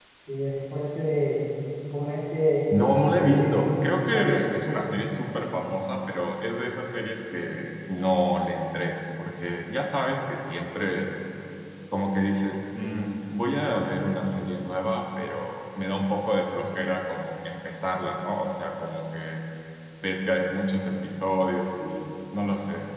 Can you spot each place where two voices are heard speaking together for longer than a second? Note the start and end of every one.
2.7-4.4

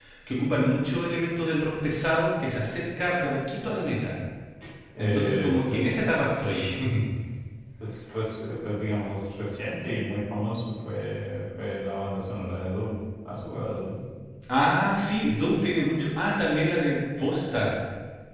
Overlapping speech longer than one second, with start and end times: 5.0-6.3

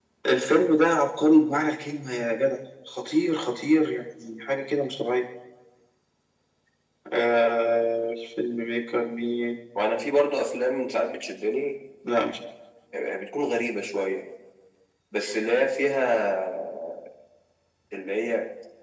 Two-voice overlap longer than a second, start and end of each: none

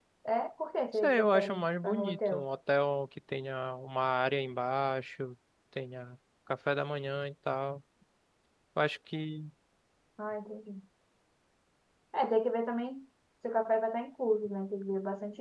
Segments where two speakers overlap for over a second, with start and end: 0.9-2.5

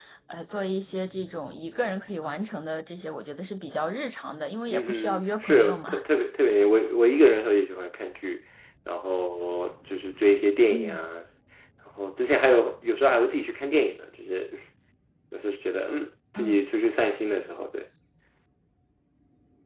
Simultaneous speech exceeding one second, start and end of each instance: 4.7-6.0

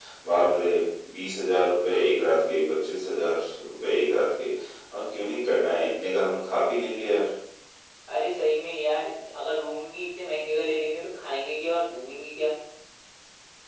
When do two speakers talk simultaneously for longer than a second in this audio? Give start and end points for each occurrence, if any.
none

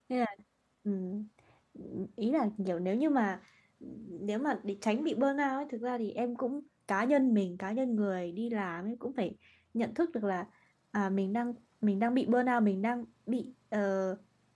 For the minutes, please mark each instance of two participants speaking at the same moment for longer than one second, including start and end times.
none

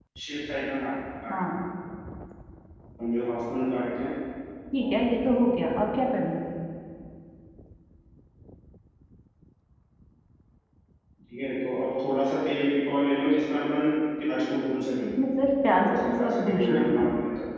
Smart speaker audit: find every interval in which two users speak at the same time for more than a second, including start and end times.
15.8-17.1

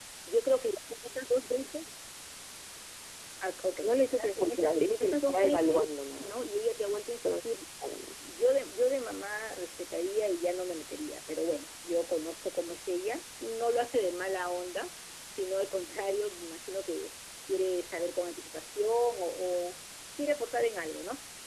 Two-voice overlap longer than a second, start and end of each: 3.8-6.4

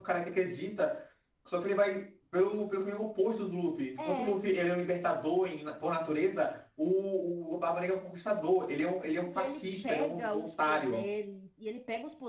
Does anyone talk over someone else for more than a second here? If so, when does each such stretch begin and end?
9.2-11.0

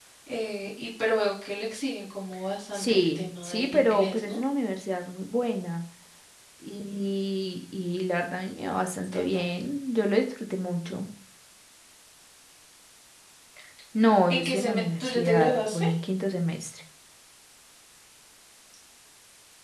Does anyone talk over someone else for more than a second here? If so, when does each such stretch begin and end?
2.7-4.4, 14.3-15.8

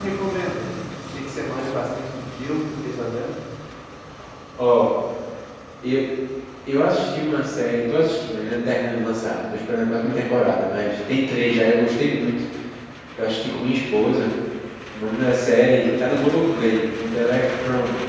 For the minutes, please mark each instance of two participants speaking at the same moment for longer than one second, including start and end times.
none

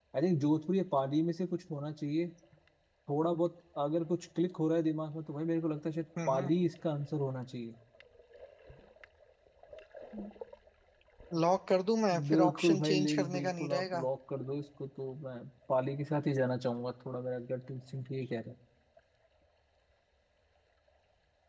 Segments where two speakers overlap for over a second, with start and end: 12.3-14.1

